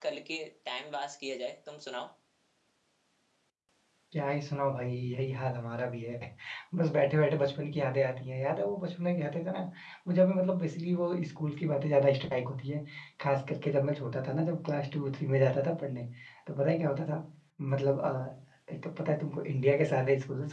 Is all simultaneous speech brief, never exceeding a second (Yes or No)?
Yes